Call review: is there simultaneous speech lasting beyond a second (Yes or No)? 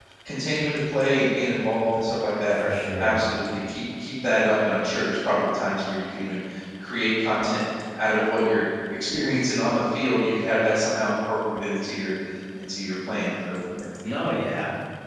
No